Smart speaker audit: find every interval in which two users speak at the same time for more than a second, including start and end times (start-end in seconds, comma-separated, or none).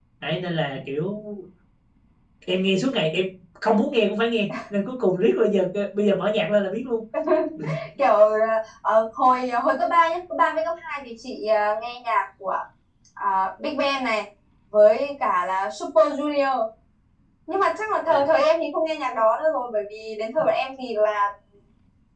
none